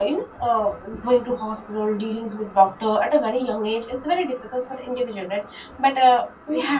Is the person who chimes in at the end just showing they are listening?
Yes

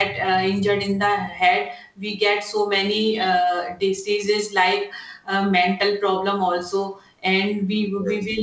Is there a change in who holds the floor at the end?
No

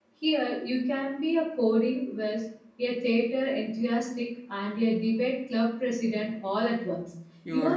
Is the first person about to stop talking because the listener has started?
Yes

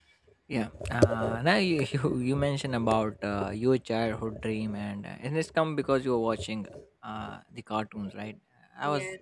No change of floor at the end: Yes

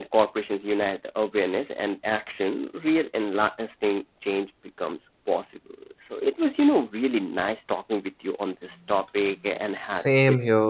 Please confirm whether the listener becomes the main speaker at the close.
Yes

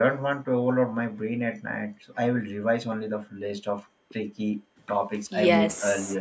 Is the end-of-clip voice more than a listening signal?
Yes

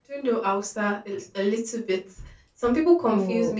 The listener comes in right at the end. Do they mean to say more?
No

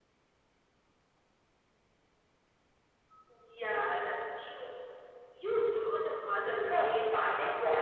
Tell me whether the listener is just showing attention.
No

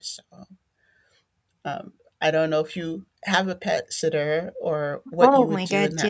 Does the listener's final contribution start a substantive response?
Yes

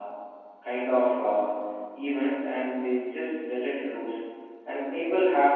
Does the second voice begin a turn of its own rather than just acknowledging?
No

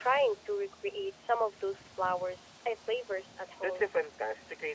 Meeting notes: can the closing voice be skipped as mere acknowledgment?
No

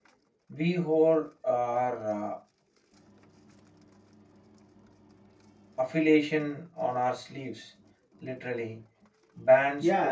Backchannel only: No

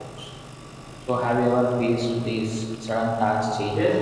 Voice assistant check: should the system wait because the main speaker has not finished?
No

